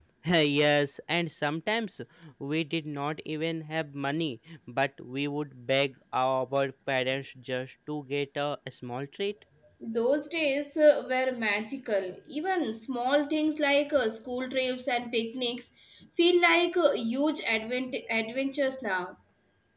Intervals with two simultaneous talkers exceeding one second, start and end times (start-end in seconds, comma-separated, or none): none